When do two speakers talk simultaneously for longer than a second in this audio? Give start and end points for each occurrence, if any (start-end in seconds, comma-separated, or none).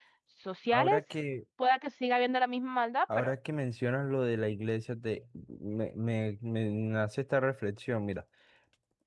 none